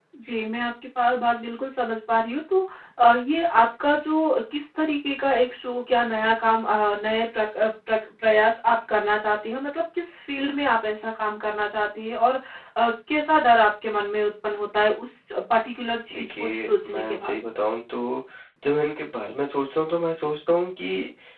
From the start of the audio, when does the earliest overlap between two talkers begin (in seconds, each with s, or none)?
16.1 s